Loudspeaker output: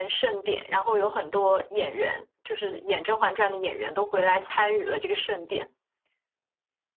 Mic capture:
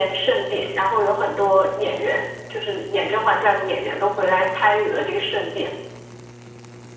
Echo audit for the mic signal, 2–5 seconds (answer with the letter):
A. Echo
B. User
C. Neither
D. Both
A